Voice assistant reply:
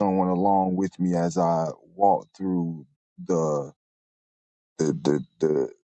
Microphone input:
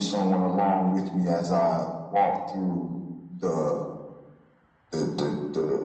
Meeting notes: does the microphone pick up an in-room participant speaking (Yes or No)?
No